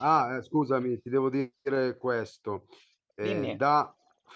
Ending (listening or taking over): listening